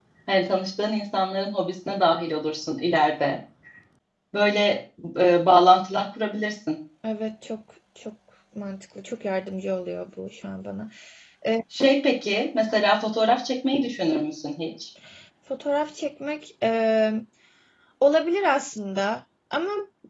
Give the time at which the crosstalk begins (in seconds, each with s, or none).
none